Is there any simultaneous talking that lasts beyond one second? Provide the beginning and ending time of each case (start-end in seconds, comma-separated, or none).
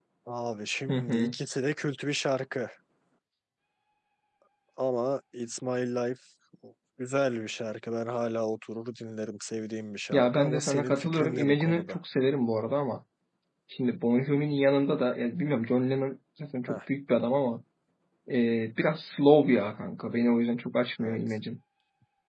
10.1-12.0